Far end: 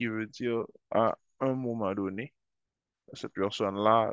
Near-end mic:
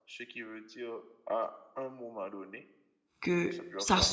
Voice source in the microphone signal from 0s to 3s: echo only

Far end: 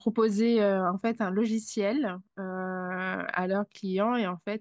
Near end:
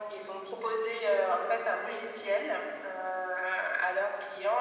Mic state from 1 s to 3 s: echo only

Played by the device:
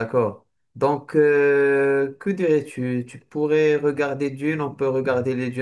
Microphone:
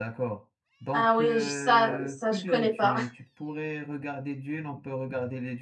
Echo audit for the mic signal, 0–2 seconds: both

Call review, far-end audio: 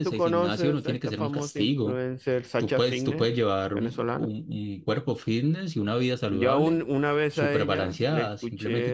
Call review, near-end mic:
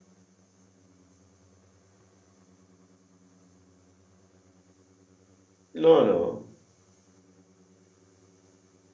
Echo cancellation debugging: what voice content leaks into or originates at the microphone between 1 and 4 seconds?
neither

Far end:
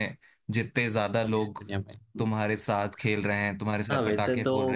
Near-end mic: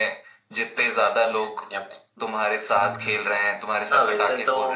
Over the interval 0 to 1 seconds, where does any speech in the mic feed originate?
echo only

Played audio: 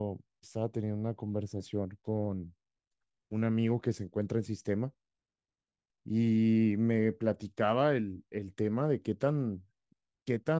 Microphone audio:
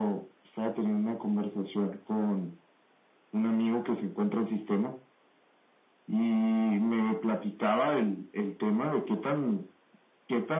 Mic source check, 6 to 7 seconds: echo only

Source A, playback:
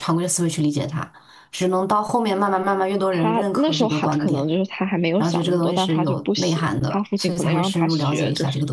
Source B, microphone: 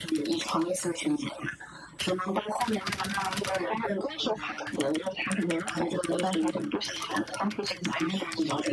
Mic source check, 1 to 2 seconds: echo only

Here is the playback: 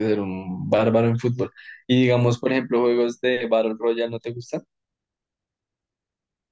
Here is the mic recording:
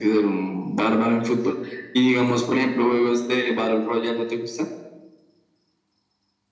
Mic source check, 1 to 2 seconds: echo only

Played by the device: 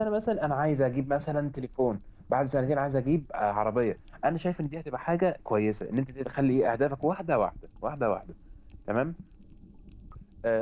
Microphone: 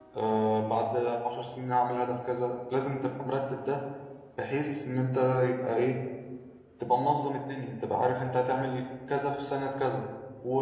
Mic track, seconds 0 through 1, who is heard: user only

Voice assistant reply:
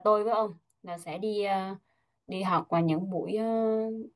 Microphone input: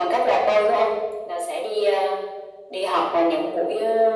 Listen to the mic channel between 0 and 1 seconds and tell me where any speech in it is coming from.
echo only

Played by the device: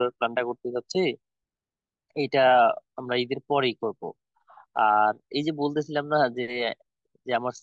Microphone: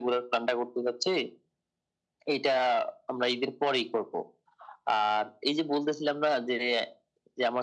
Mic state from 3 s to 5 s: echo only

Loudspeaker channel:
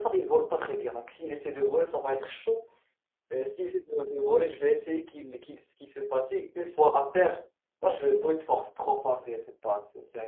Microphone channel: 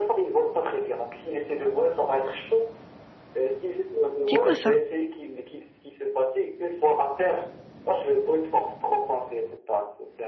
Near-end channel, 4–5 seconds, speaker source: both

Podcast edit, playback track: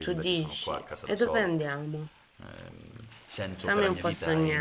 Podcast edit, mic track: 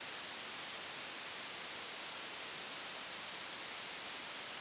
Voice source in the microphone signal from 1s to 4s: neither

